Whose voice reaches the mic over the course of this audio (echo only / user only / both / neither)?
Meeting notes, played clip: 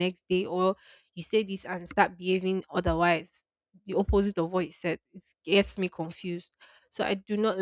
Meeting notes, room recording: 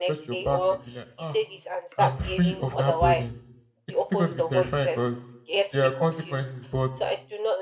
both